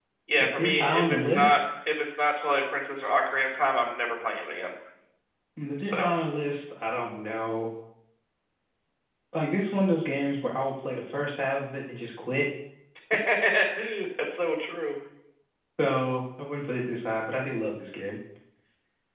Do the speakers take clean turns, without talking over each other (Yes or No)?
No